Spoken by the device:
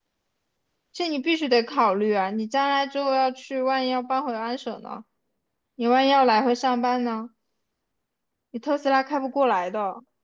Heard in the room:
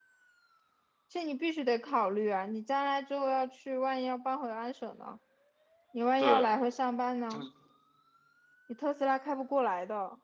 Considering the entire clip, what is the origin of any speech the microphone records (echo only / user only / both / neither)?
both